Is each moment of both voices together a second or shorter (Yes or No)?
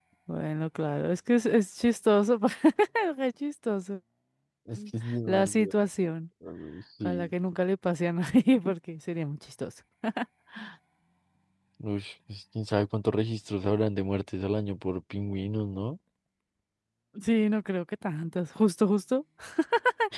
Yes